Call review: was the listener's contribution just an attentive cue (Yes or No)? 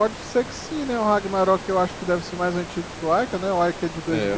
No